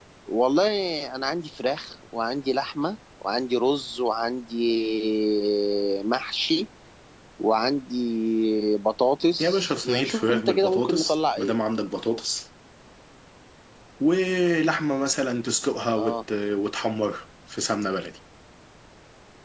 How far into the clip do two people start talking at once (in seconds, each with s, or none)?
9.4 s